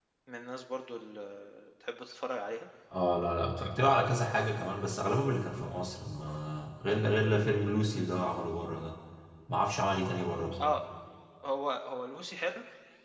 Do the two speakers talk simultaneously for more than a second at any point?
No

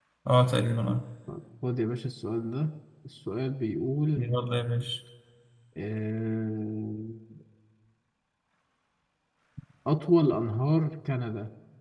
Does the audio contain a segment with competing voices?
No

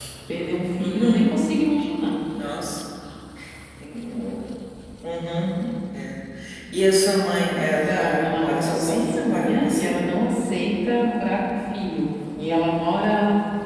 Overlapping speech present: Yes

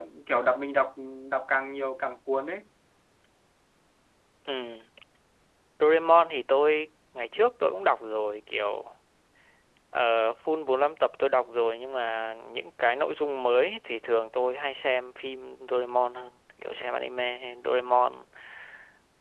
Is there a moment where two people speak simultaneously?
No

